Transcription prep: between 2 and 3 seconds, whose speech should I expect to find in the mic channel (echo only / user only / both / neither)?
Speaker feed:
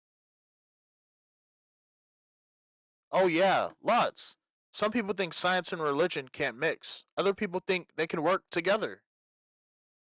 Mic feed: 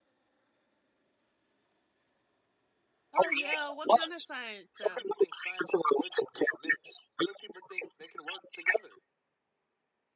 neither